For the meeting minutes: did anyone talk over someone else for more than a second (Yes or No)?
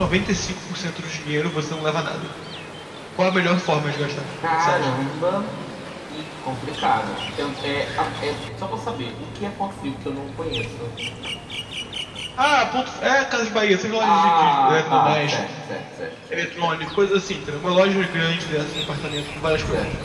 Yes